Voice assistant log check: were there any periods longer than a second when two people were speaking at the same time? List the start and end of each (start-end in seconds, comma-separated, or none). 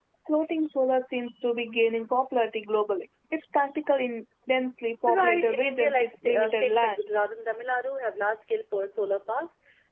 5.1-7.0